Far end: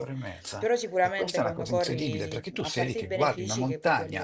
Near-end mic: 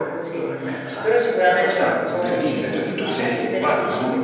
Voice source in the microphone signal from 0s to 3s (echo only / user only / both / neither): echo only